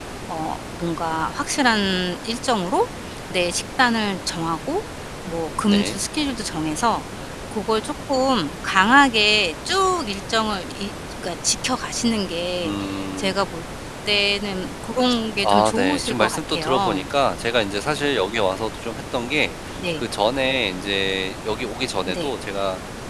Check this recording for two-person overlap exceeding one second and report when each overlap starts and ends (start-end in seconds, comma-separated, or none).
15.5-17.0